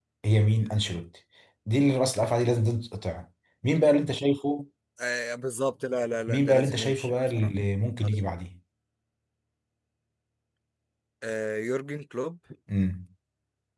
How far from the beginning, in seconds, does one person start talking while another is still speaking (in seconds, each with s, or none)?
6.3 s